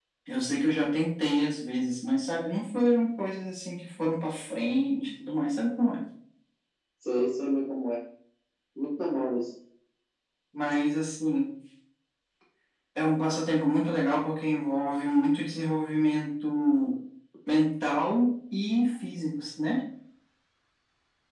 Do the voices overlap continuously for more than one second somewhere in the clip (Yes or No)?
No